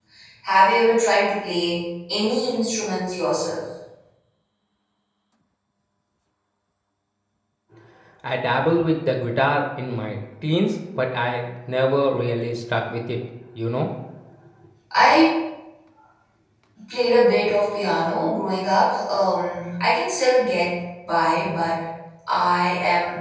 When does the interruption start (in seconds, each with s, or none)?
none